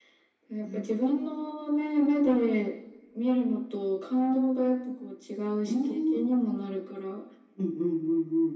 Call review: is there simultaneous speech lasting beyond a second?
No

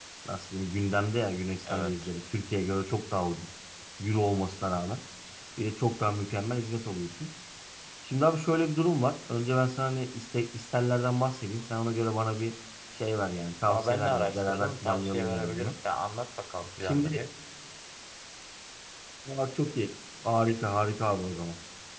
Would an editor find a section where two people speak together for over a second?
Yes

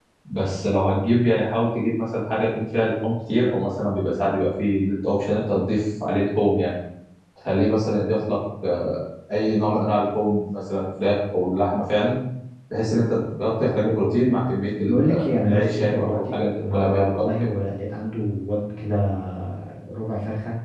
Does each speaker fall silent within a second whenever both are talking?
No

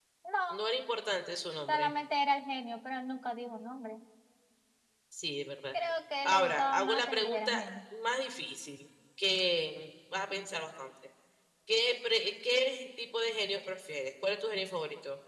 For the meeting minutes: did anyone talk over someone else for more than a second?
Yes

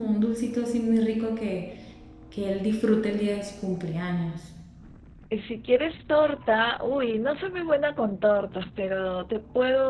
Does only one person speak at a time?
Yes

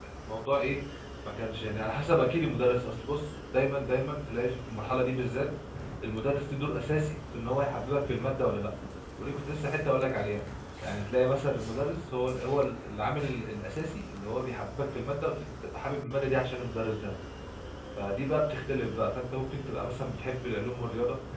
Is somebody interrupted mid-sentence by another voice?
No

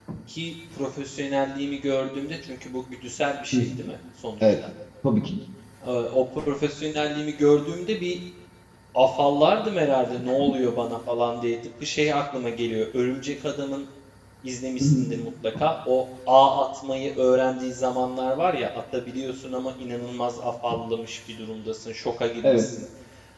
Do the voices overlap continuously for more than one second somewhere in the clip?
No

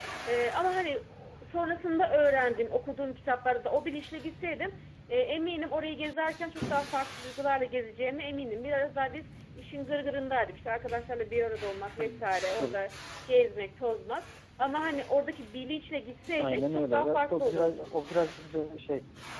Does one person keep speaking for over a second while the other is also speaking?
Yes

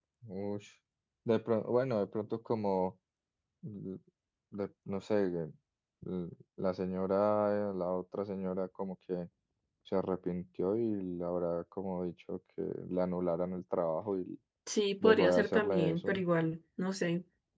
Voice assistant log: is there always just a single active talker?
No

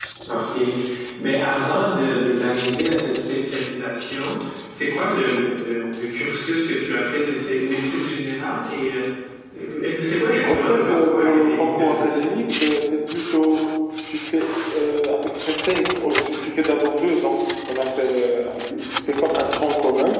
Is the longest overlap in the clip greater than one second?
Yes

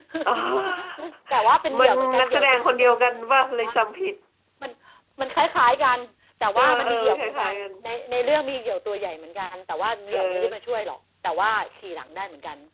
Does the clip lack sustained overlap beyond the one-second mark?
No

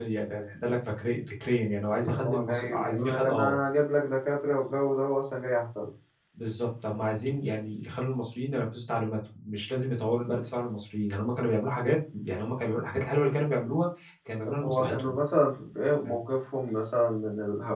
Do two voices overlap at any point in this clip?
Yes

